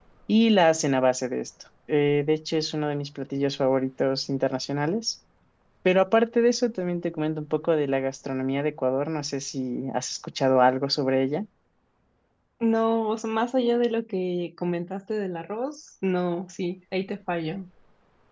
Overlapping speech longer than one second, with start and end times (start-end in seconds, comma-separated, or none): none